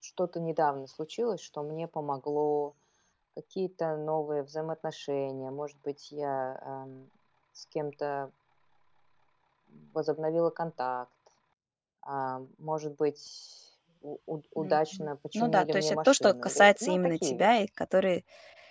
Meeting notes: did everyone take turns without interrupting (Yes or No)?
No